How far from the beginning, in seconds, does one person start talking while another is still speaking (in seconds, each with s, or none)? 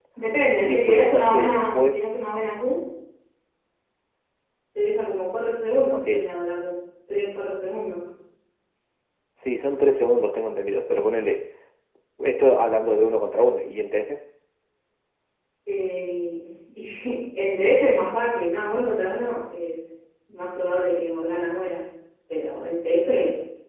0.6 s